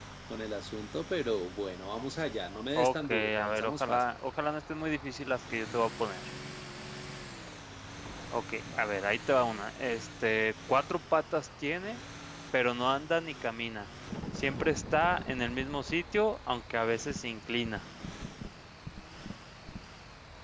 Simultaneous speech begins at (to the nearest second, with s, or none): 3 s